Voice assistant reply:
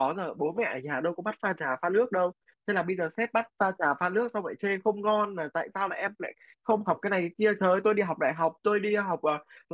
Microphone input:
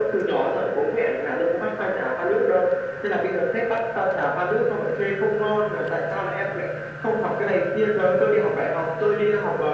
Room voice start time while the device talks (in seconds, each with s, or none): none